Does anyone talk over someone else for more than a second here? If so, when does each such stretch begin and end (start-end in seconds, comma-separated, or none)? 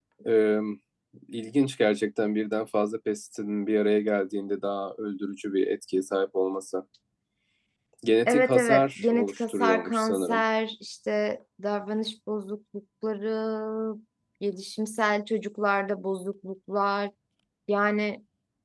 8.3-10.4